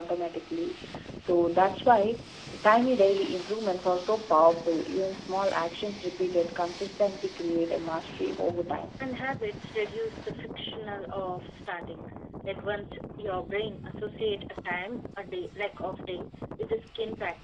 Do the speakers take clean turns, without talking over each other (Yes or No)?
Yes